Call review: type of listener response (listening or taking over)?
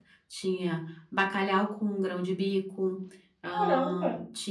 taking over